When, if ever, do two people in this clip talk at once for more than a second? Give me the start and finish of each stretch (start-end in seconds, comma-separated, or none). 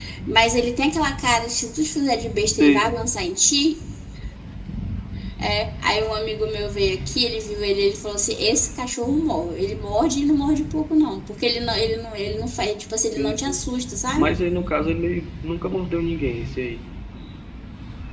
none